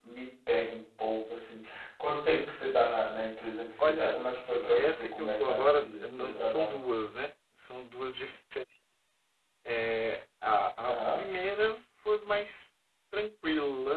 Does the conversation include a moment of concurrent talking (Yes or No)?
Yes